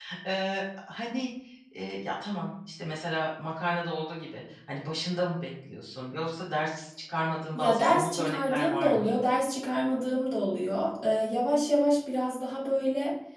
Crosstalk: present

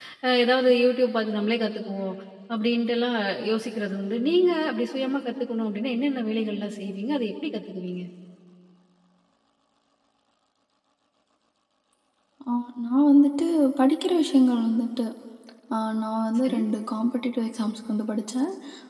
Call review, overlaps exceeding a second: none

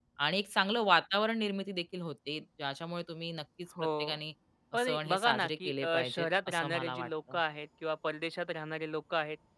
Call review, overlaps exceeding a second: present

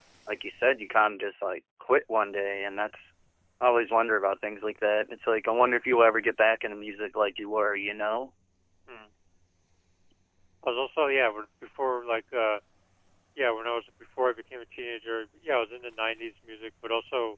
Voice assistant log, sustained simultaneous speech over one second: none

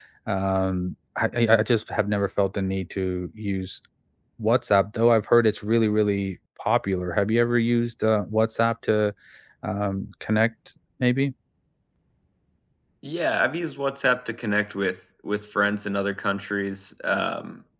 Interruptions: none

